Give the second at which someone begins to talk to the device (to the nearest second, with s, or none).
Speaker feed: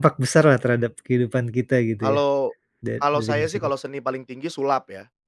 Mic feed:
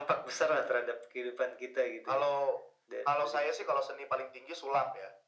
none